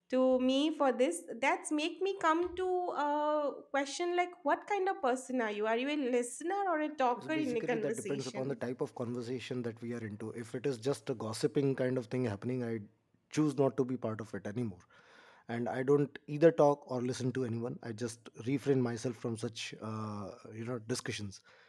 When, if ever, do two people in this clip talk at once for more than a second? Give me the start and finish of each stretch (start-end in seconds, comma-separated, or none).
7.2-8.6